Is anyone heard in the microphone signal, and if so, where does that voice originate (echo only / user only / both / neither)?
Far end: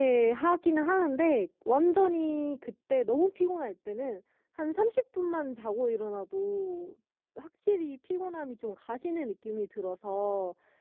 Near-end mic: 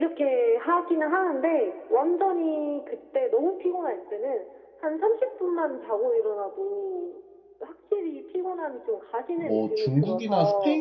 both